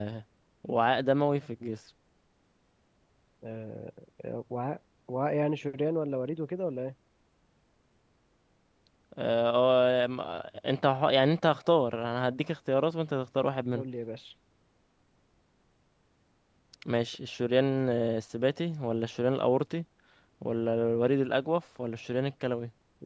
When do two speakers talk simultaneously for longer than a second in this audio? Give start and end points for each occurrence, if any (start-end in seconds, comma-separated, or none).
none